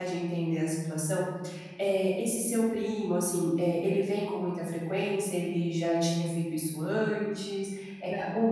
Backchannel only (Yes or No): Yes